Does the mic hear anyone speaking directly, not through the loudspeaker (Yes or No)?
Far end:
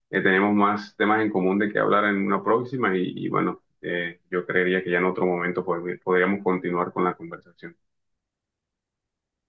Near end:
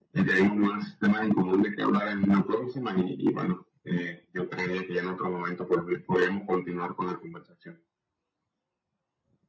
No